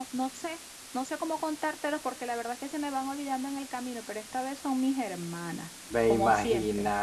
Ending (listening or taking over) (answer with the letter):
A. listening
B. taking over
B